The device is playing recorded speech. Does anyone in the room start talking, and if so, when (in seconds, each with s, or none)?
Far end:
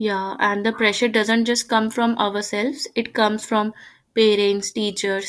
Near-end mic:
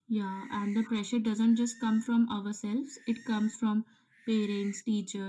none